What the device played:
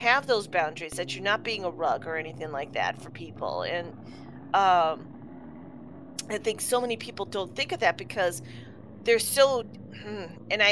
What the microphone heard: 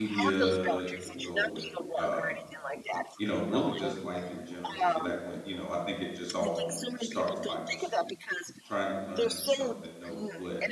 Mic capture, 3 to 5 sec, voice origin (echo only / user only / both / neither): both